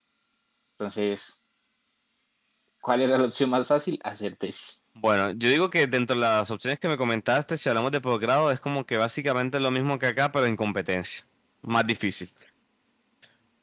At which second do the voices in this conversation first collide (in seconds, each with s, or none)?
none